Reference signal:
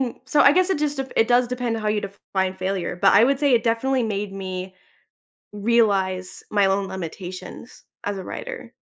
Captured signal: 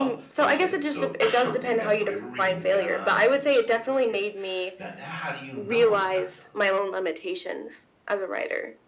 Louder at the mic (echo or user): echo